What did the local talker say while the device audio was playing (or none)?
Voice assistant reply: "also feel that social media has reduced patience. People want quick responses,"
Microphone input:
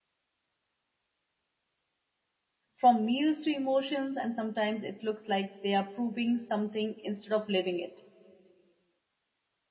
from meals to emotions, and sometimes it looks like they are proving something instead of living it.